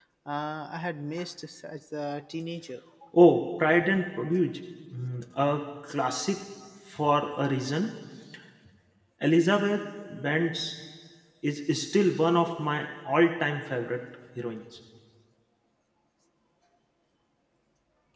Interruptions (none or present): none